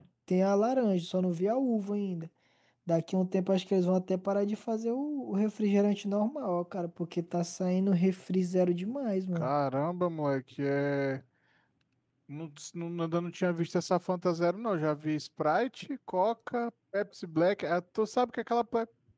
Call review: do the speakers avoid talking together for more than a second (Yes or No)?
Yes